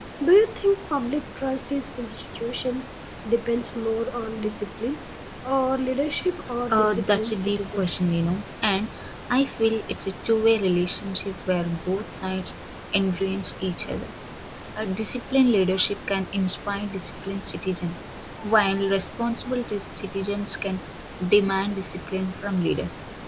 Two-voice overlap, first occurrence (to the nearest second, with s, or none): 7 s